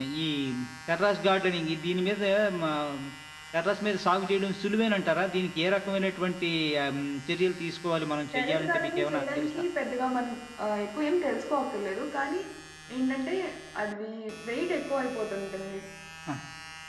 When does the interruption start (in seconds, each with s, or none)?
8.3 s